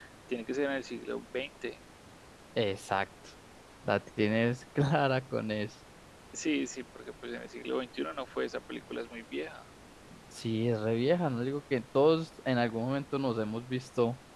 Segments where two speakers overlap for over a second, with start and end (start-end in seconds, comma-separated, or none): none